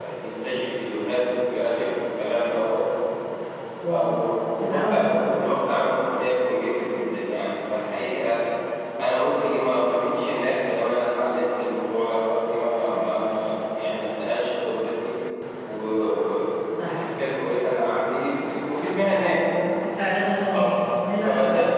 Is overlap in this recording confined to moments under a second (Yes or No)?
Yes